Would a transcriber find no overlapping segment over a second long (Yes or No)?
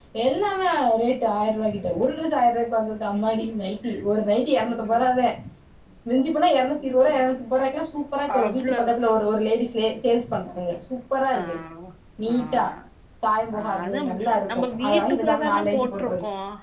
No